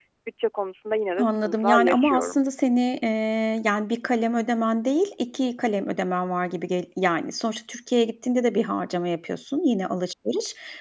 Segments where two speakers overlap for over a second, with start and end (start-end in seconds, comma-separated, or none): 1.2-2.4